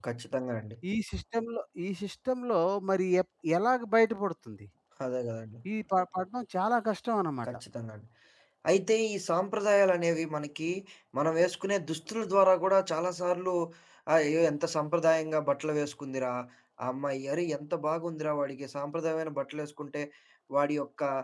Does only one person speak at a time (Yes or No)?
Yes